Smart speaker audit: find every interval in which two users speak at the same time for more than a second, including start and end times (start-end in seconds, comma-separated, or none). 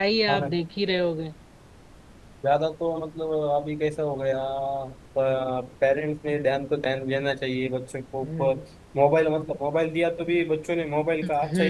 none